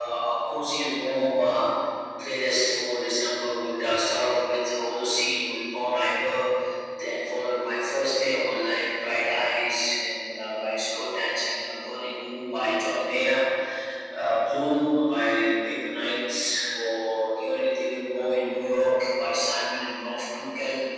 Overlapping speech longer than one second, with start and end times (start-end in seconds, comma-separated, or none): none